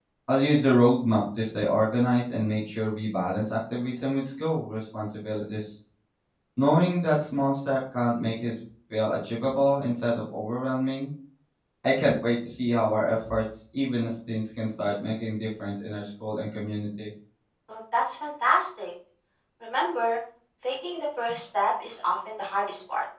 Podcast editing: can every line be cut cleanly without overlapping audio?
Yes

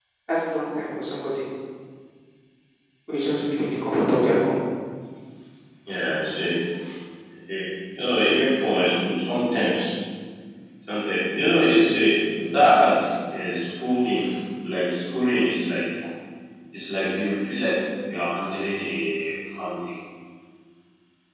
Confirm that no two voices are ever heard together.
Yes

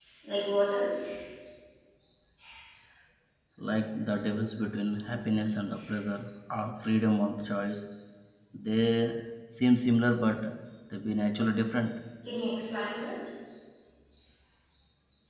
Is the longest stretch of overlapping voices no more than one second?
Yes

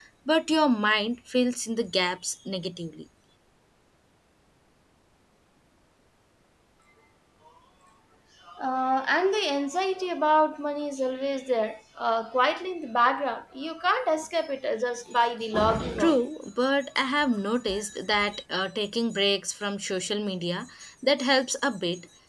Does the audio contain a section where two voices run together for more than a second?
No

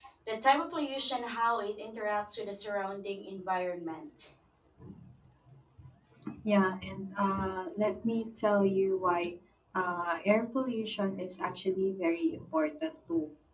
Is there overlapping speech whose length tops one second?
No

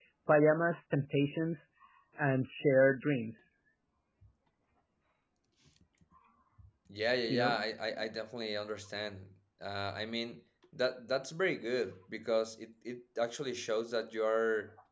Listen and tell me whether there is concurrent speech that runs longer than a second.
No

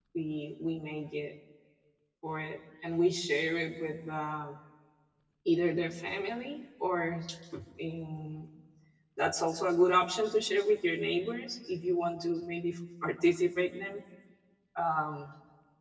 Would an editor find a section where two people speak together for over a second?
No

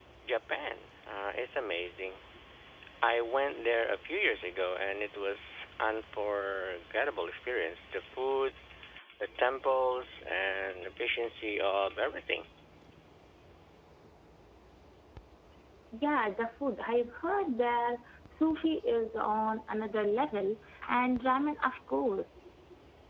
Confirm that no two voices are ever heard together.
Yes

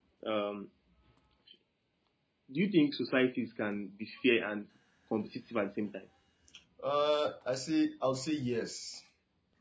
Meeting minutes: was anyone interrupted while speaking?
No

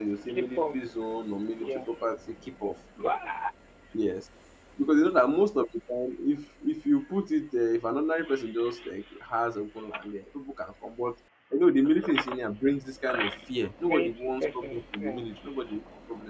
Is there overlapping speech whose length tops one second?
Yes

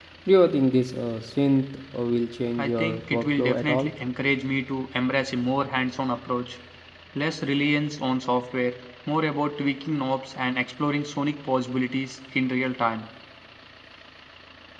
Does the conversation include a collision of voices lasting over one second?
Yes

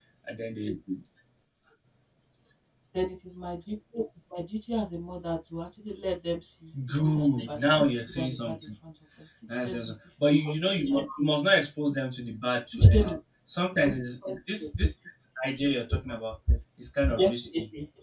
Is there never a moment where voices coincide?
No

